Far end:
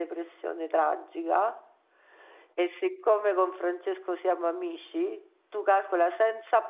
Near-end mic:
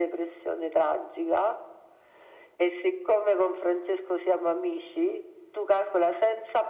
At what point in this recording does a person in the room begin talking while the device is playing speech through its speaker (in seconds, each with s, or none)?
none